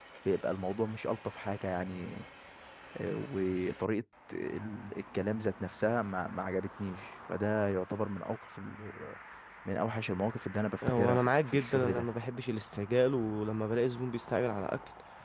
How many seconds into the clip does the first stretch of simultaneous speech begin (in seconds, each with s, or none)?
10.8 s